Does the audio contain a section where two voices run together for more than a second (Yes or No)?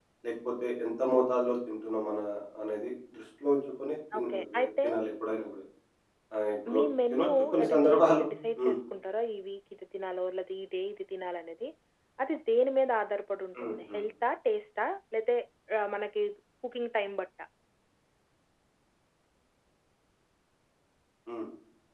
Yes